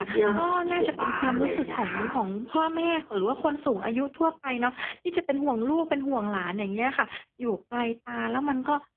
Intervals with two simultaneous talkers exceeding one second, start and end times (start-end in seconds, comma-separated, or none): 0.6-2.1